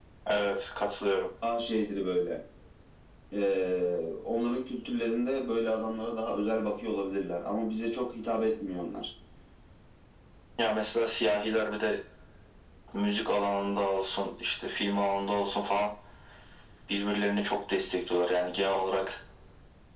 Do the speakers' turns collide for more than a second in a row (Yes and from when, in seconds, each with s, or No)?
No